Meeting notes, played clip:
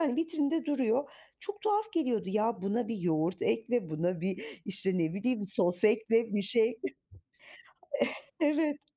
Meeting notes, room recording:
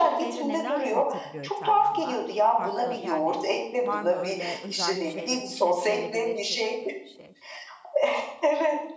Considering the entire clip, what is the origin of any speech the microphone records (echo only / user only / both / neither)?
both